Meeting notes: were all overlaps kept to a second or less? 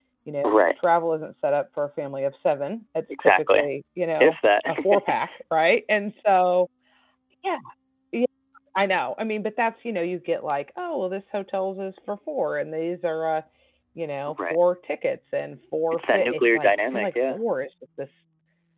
No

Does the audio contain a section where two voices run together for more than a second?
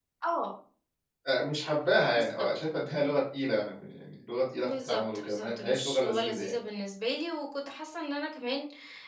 Yes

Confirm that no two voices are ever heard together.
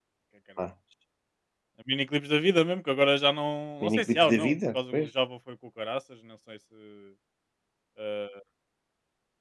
No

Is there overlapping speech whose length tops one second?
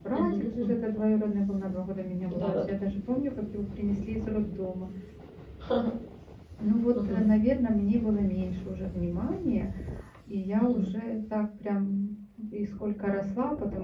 No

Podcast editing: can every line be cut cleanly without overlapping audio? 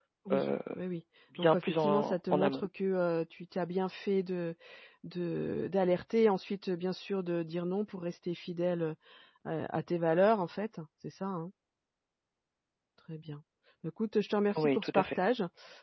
No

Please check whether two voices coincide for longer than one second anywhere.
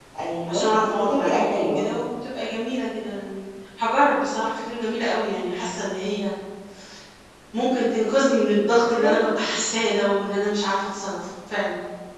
Yes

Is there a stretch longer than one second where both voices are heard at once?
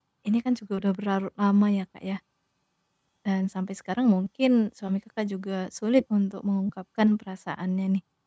No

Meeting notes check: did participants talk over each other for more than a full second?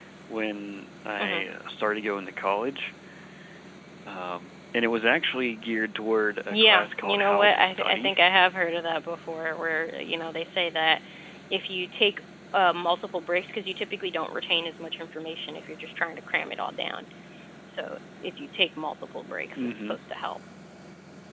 Yes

